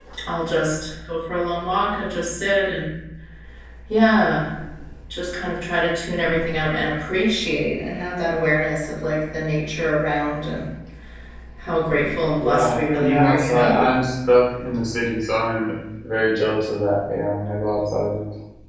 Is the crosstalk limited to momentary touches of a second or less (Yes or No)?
No